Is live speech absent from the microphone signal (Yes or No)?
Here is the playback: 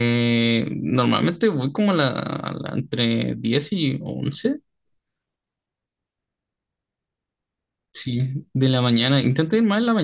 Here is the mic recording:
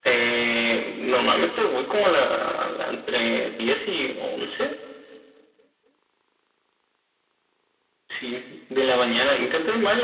Yes